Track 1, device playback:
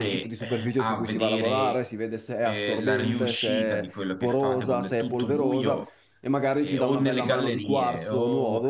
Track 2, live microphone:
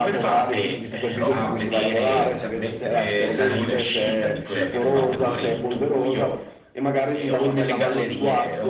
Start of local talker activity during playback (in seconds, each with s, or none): 1.1 s